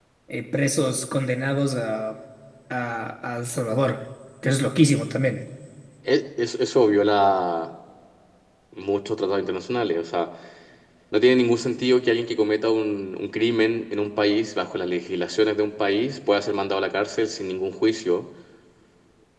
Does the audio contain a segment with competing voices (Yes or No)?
No